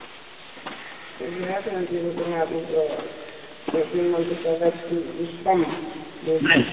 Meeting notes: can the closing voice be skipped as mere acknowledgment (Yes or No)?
No